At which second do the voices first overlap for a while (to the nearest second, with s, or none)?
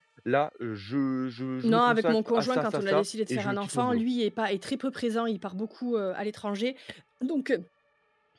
2 s